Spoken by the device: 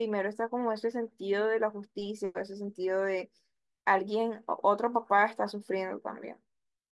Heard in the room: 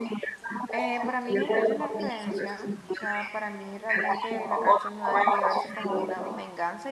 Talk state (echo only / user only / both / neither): both